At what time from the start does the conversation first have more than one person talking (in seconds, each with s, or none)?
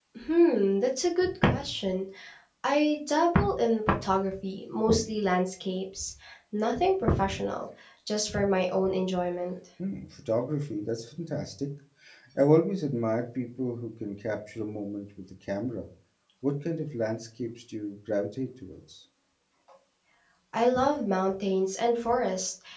none